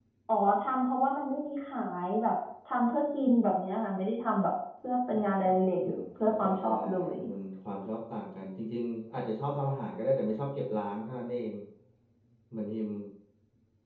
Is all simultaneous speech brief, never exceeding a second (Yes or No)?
No